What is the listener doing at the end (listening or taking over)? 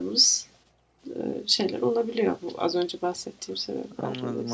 taking over